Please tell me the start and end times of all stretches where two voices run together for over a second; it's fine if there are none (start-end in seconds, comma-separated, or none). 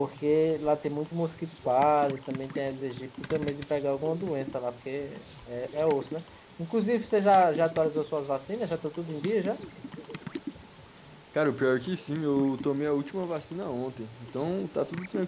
none